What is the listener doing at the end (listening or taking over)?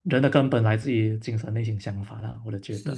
taking over